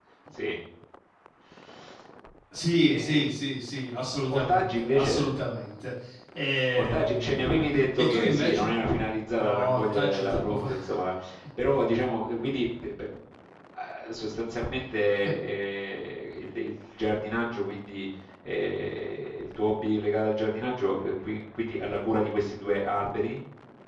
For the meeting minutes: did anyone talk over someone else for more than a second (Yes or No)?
Yes